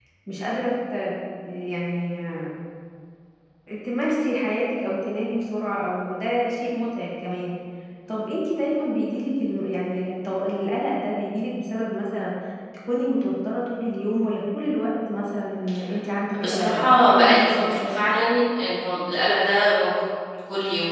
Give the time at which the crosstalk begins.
16.4 s

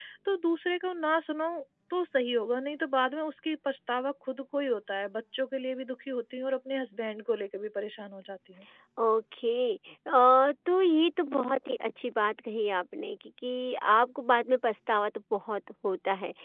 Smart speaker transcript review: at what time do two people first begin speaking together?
none

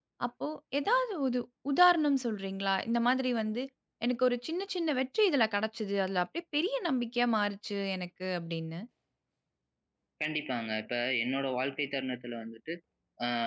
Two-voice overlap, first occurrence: none

